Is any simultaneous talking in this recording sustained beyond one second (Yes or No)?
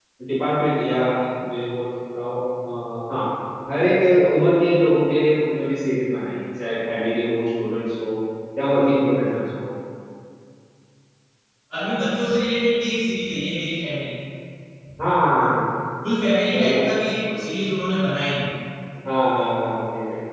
No